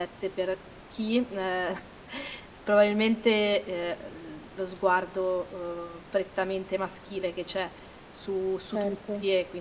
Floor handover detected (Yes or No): No